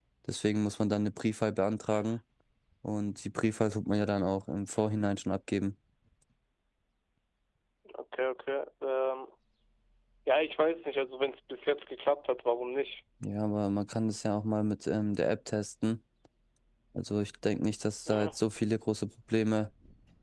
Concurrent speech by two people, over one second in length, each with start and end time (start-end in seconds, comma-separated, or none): none